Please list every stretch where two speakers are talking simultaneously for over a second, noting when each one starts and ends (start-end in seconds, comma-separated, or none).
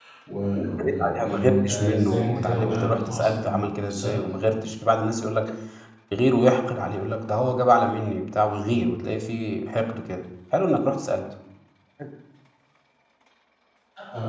0.6-4.1